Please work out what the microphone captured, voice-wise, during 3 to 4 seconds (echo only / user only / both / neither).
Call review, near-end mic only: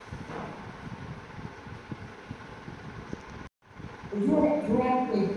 neither